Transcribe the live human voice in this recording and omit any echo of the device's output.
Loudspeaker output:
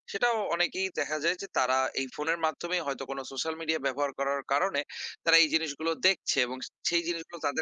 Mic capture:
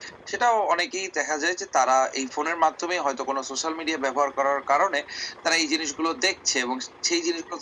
none

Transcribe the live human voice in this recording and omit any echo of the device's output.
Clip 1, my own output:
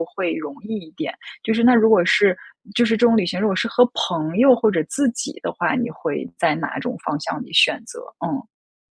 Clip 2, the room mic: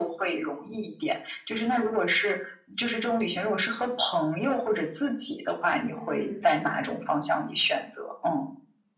嗯。

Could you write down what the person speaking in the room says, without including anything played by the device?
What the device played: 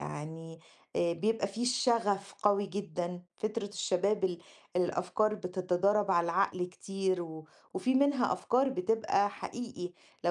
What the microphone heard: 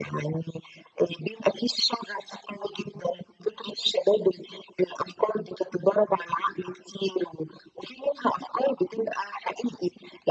none

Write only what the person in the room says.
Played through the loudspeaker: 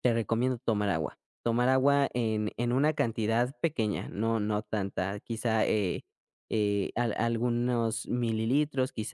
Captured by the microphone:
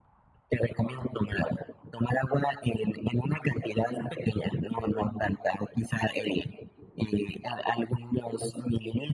none

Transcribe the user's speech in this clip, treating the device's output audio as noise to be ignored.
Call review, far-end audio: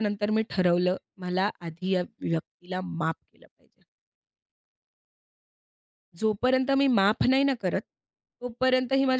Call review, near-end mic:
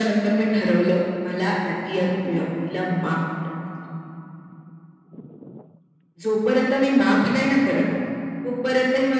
none

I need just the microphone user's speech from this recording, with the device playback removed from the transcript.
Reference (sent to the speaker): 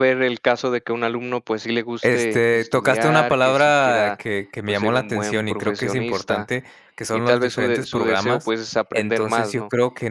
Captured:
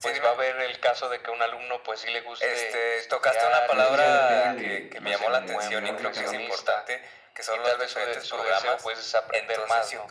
O sea, eso ya depende de la solidaridad de cada uno.

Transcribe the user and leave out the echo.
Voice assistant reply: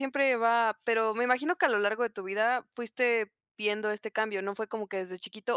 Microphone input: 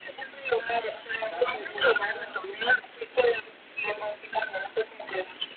Darse cuenta

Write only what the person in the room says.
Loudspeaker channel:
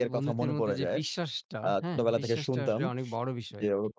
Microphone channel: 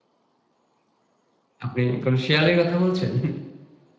আপনি কোন শেয়ালের কথা বলছেন?

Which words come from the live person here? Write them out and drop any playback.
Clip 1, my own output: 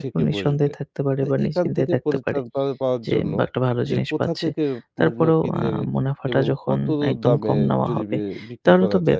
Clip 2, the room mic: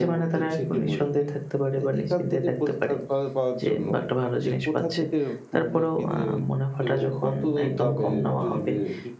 none

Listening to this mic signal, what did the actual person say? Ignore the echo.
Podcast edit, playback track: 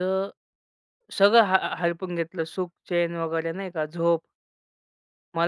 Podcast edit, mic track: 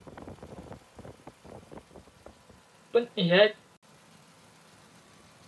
पण ह्या

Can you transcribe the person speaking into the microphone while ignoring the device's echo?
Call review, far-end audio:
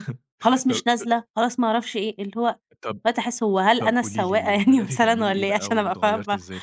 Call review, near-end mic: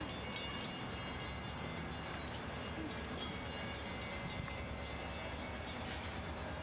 none

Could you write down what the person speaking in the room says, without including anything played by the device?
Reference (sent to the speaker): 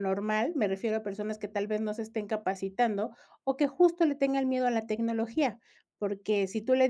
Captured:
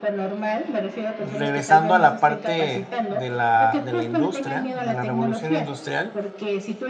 regresando a la parte de la, de la industria, de la revolución industrial,

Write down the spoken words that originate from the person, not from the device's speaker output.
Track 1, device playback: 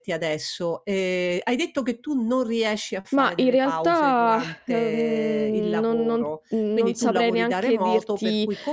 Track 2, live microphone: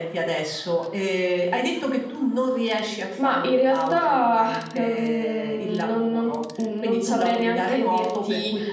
none

